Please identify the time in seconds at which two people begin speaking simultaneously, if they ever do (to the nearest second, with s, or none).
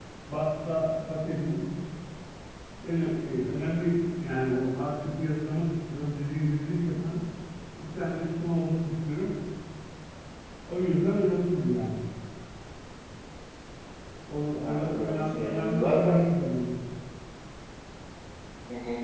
15 s